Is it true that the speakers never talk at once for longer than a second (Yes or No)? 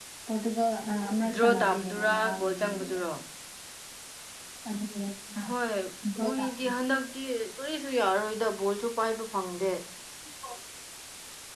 No